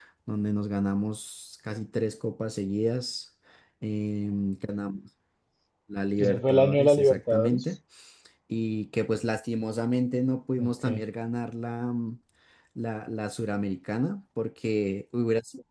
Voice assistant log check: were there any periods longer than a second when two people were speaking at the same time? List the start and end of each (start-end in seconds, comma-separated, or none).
6.2-7.6